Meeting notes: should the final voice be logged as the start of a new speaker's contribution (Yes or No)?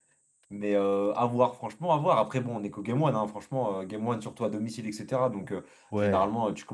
No